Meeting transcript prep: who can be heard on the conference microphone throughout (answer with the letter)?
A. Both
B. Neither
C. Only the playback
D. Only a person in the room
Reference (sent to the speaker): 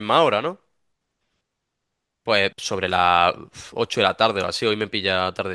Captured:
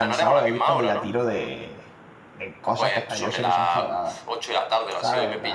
A